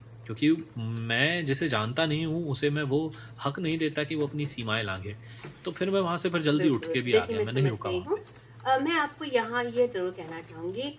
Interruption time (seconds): 7 s

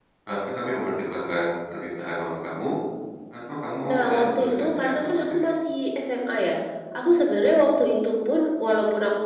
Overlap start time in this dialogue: 4 s

